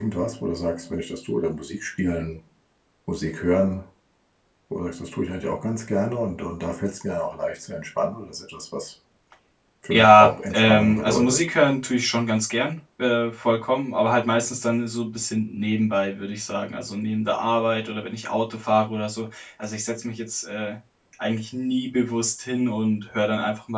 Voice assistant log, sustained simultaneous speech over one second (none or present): present